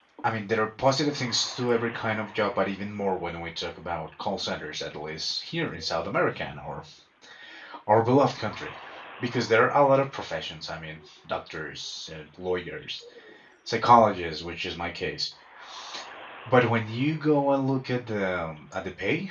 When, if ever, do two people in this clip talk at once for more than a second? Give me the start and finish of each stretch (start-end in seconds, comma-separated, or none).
none